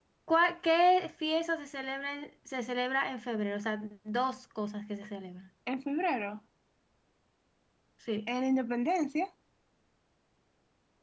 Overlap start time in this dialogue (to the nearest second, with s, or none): none